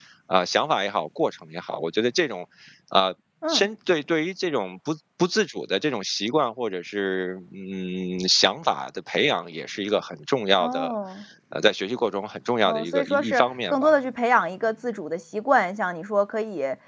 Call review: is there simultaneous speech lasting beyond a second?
Yes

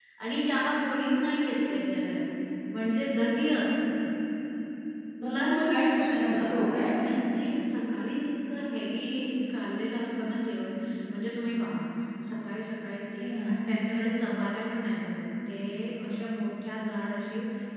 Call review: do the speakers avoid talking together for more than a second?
No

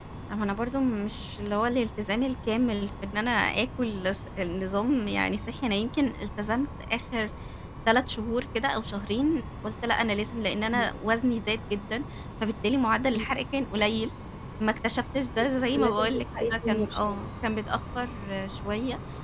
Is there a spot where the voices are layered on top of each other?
Yes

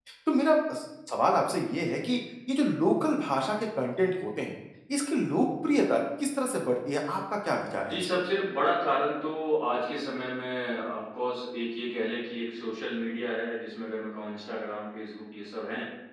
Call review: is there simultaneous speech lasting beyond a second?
No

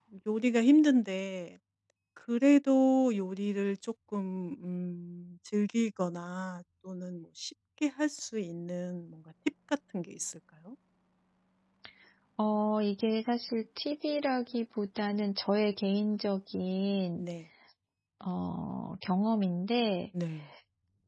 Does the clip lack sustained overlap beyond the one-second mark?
Yes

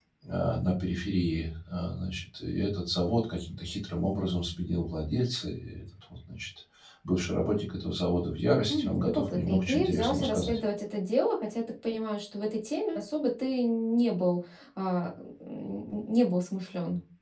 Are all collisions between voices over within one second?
No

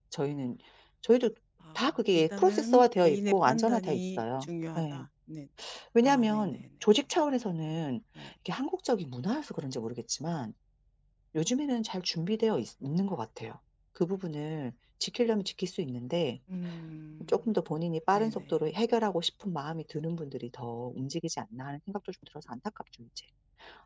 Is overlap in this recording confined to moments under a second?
No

